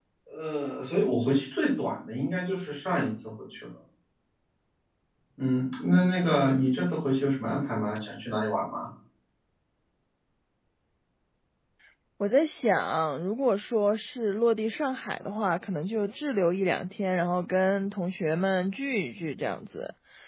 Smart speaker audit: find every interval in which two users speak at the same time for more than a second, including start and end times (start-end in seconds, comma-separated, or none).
none